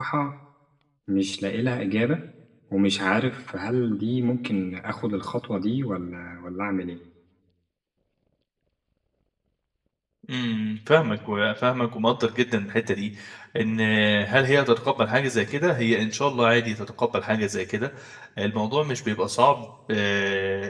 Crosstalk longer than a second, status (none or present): none